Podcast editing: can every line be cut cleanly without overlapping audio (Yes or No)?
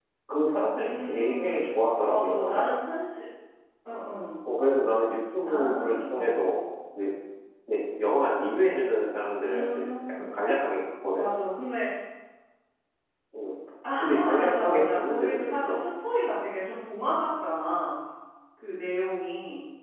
No